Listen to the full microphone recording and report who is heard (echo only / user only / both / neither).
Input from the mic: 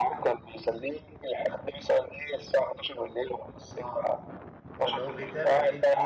both